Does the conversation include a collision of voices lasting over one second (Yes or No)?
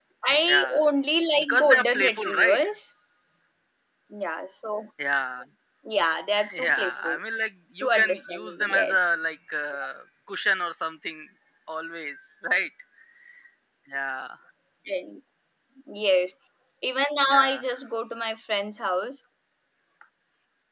Yes